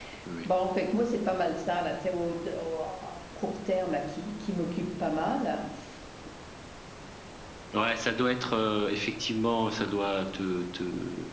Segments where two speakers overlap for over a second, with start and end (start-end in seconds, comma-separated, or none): none